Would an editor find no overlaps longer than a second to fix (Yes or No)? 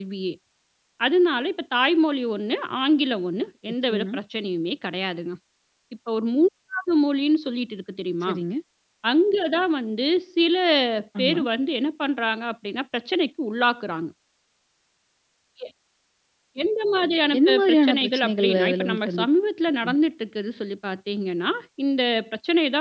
No